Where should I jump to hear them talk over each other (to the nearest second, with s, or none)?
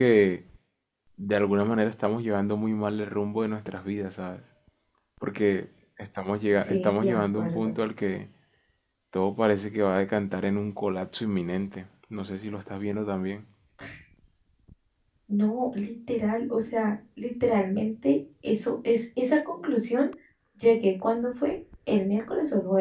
7 s